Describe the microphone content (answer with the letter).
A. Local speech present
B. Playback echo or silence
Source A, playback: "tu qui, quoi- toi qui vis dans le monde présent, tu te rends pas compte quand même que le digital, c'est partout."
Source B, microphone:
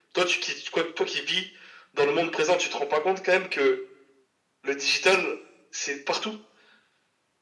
B